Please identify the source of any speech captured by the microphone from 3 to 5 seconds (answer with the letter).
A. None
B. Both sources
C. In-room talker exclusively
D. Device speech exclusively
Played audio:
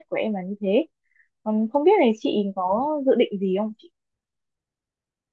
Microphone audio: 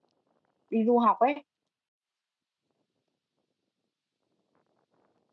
A